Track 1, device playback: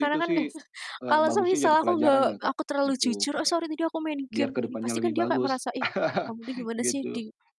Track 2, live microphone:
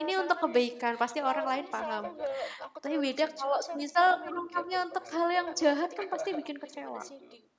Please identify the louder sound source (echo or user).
user